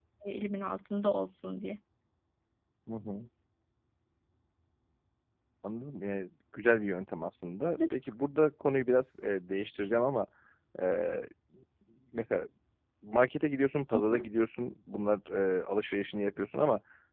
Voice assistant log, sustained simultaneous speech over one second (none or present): none